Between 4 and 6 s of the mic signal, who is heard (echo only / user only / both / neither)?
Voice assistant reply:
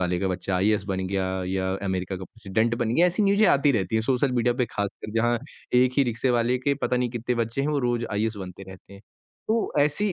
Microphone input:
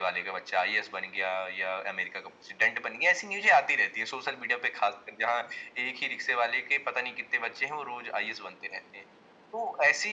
echo only